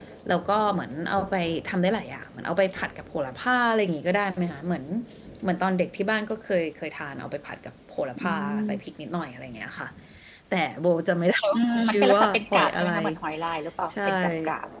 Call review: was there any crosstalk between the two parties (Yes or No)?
Yes